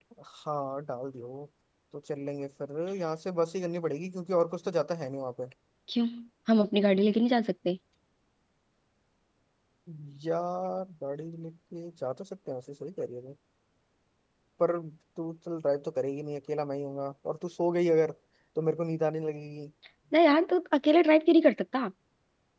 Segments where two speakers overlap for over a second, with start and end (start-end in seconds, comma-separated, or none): none